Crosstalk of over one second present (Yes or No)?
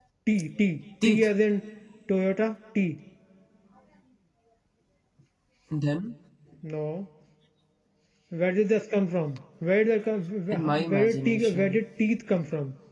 Yes